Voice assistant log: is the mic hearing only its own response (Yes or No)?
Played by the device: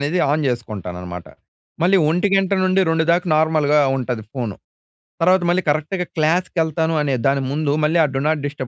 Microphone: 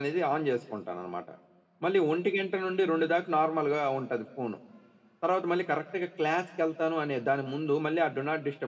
Yes